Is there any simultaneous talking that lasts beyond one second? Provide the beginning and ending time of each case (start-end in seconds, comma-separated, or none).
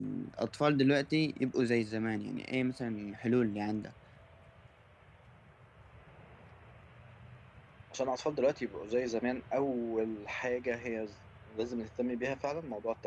none